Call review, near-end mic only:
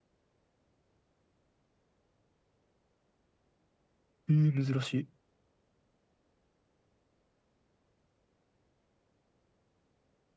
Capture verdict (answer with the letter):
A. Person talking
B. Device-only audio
A